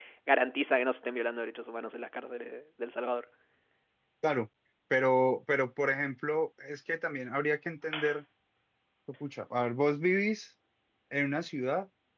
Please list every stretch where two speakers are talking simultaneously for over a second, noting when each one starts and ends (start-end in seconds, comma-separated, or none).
none